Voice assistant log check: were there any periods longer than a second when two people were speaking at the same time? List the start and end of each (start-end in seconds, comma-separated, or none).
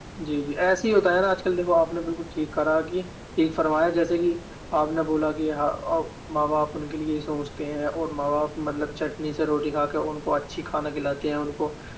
none